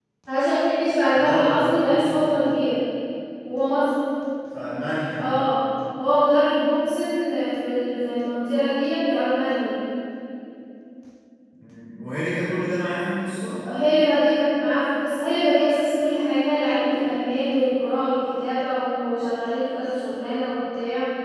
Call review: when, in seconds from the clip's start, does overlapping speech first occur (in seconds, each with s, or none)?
1.1 s